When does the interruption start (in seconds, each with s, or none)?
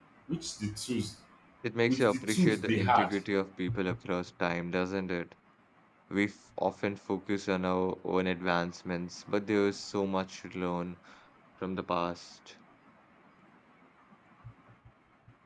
1.9 s